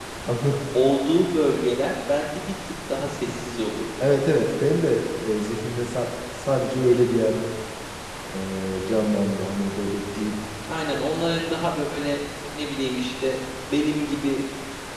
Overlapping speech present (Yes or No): No